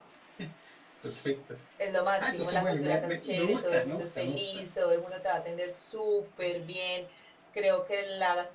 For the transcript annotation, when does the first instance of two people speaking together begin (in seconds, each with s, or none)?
2.2 s